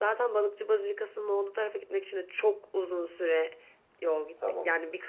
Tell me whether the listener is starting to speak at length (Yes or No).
Yes